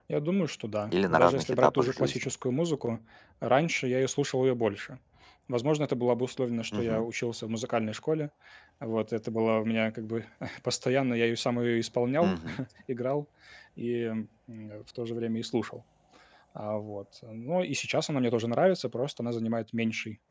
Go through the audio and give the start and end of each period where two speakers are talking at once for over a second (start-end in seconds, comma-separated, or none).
0.9-2.3